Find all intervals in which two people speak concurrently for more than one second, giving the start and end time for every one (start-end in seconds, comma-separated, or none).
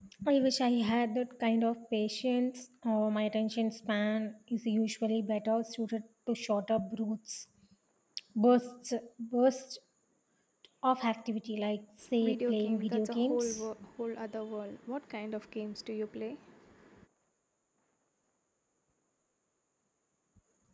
12.2-13.6